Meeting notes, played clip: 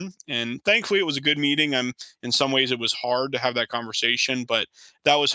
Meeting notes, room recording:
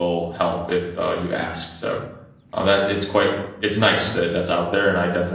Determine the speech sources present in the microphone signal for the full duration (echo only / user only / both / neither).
user only